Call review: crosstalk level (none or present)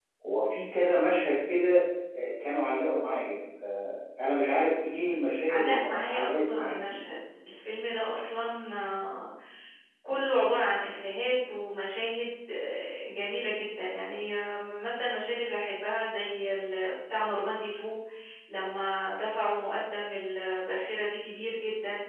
present